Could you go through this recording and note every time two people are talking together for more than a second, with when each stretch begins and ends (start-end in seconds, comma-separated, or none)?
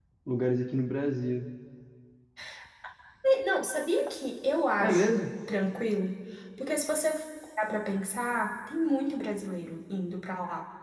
none